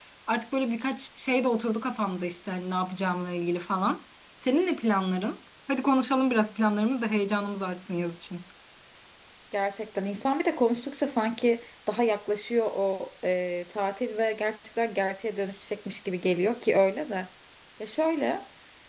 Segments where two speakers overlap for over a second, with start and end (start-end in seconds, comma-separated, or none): none